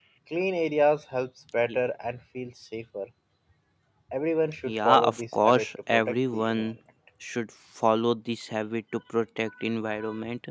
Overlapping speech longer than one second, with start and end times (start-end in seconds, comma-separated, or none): 4.6-6.8